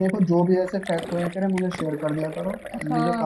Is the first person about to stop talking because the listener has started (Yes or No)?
Yes